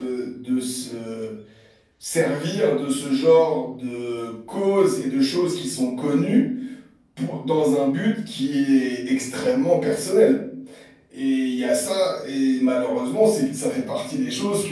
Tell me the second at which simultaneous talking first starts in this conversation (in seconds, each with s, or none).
none